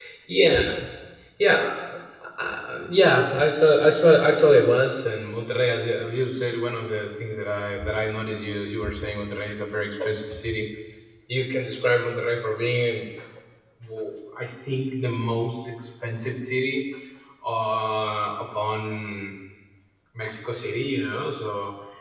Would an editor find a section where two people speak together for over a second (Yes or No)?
No